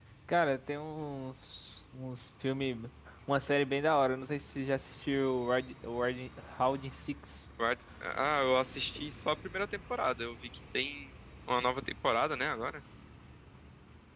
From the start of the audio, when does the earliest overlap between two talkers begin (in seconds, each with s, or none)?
none